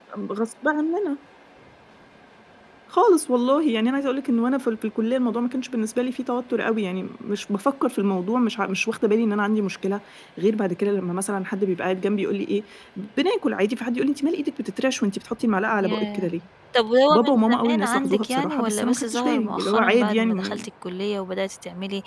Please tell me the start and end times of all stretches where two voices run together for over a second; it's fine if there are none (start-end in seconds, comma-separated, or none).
17.1-20.7